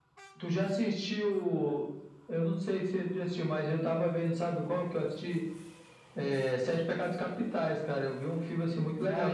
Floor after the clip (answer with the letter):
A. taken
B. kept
A